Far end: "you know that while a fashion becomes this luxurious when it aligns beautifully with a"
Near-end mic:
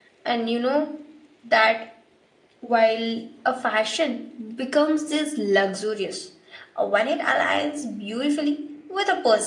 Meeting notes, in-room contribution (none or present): none